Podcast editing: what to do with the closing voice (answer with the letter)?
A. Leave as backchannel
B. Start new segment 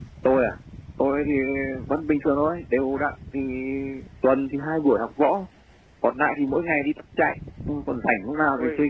A